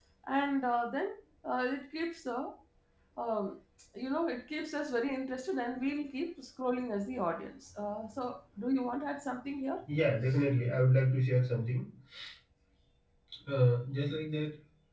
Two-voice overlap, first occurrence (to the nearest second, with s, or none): none